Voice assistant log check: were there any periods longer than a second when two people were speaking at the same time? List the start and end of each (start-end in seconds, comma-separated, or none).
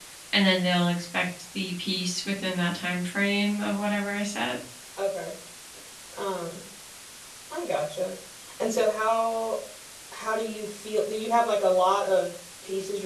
none